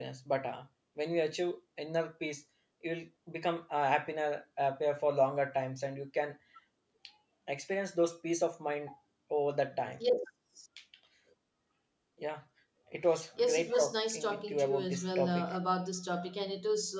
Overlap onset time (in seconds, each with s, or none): 13.4 s